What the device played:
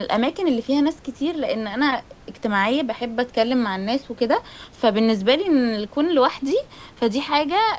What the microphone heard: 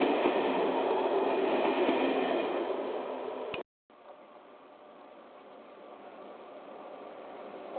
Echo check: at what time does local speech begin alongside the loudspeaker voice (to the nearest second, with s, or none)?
none